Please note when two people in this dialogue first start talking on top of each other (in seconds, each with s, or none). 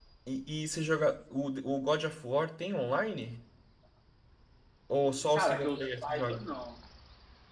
5.0 s